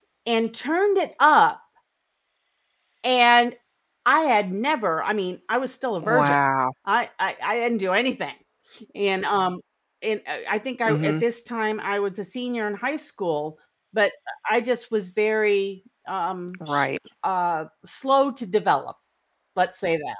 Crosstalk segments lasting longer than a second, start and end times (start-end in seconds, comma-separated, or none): none